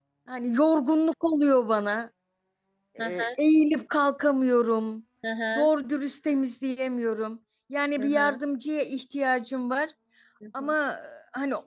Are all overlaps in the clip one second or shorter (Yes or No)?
Yes